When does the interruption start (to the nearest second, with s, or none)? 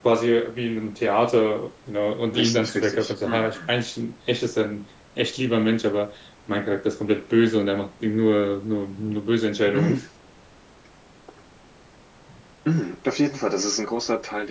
2 s